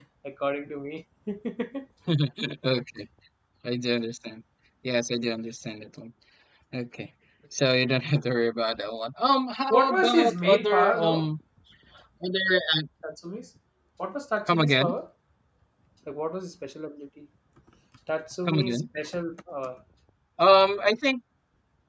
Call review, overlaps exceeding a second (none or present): present